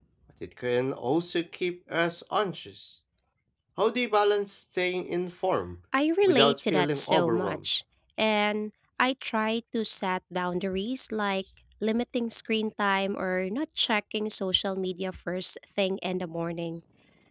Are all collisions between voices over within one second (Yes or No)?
No